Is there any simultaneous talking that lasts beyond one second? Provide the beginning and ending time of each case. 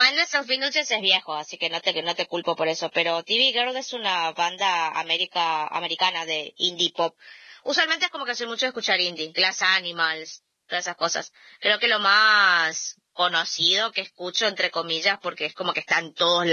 none

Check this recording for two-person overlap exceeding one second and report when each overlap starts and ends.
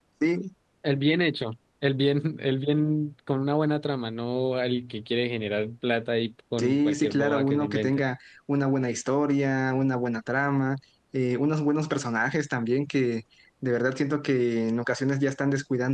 6.6-8.0

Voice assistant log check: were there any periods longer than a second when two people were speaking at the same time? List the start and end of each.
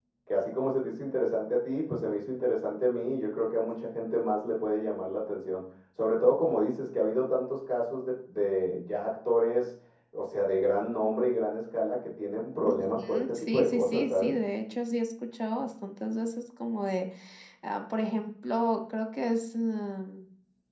12.7-14.3

